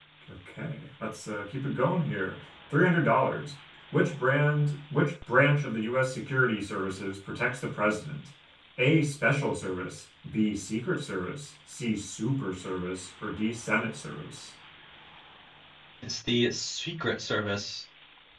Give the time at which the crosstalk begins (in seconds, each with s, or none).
none